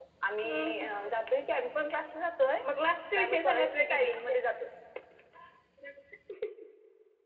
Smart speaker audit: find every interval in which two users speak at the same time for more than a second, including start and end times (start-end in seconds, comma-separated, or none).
3.1-4.4